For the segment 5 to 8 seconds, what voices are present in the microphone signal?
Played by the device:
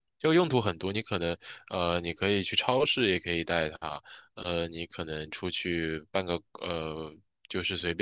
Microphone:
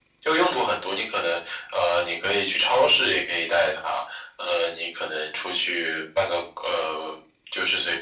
echo only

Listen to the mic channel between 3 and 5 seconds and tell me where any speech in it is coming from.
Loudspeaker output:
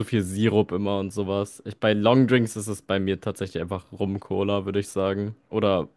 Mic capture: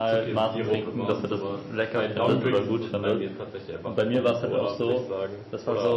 both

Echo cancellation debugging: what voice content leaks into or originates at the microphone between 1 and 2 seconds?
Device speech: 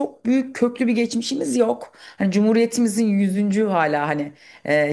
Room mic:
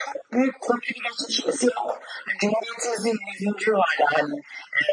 echo only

